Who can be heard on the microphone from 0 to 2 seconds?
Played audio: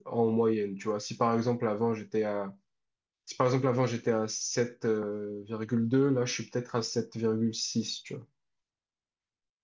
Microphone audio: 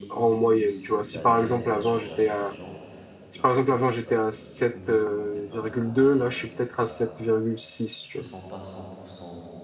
both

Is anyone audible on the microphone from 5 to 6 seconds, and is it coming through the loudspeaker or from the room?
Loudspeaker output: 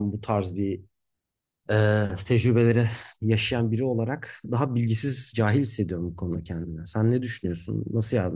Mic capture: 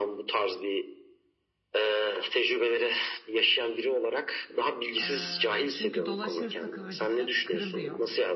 both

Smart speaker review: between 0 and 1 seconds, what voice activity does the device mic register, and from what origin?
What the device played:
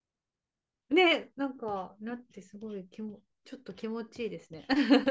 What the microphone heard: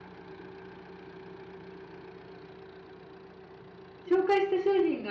neither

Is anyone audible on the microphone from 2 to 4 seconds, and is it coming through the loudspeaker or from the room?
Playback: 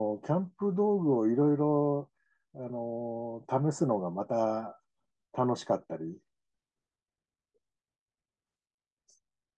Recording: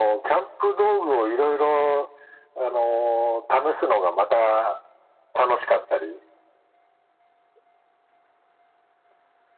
echo only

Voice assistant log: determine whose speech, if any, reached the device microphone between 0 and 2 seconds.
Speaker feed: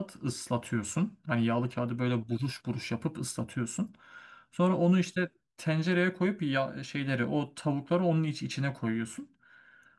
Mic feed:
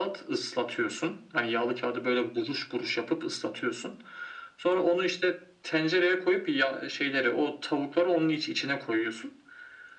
echo only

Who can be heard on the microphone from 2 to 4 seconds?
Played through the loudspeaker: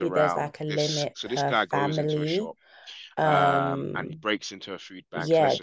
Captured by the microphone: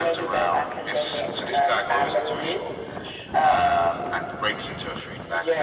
echo only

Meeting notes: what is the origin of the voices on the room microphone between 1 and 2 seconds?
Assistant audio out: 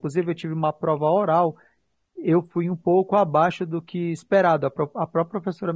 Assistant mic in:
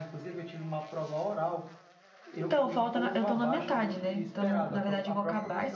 echo only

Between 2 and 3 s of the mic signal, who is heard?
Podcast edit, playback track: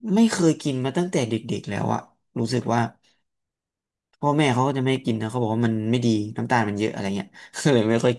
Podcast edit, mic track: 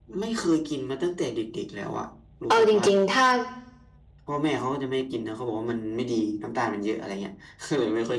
both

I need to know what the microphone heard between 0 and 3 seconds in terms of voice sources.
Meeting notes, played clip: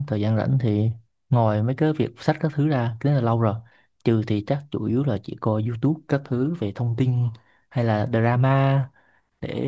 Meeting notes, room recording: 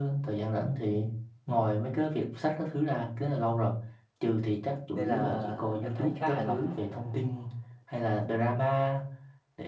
echo only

